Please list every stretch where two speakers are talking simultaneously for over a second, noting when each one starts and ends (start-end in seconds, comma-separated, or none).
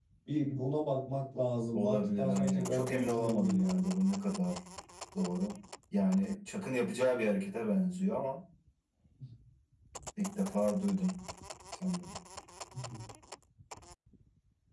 1.7-3.8